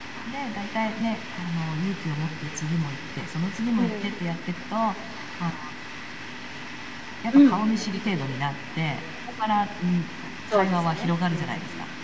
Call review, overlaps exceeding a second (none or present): present